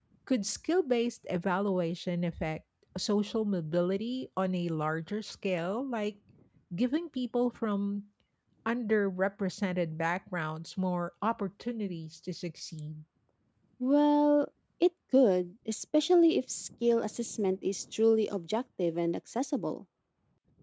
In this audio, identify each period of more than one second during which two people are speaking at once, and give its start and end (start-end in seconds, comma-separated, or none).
none